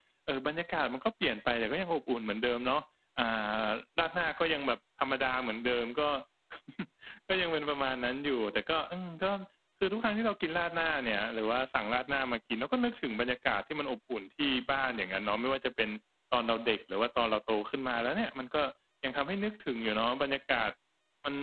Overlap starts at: none

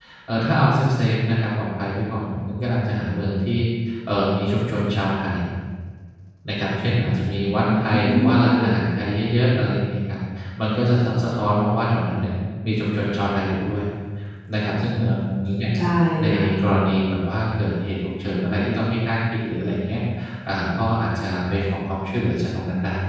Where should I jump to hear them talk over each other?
7.4 s

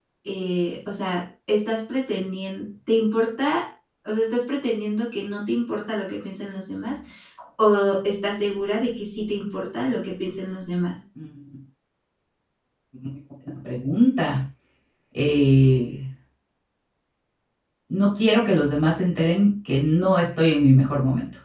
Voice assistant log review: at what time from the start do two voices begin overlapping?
none

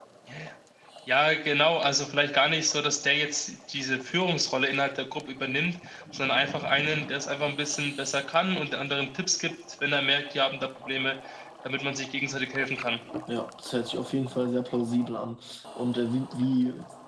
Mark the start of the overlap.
none

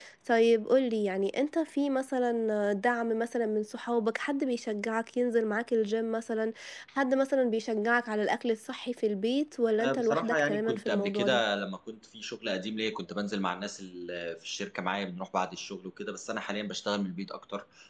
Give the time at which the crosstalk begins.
9.8 s

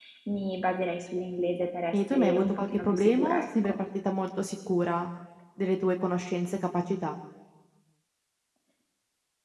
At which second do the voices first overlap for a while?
1.9 s

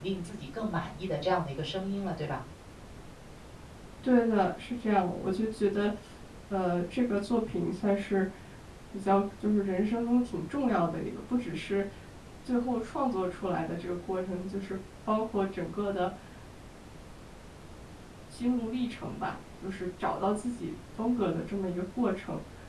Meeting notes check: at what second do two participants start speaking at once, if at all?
none

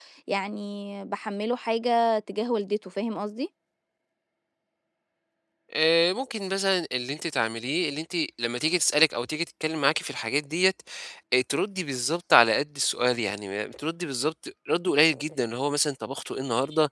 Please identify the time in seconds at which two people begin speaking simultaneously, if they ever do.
none

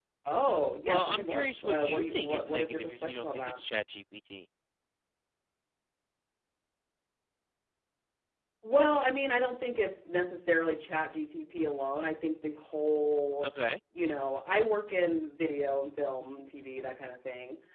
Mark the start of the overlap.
0.8 s

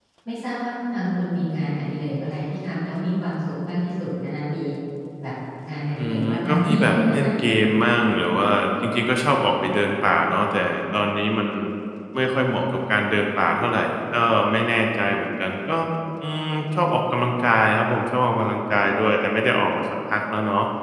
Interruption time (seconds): 6.0 s

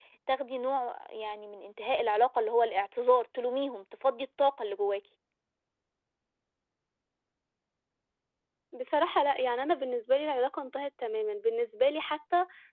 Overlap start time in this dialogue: none

